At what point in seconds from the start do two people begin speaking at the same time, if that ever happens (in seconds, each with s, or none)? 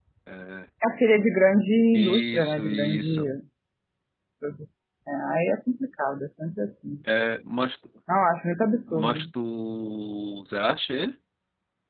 1.9 s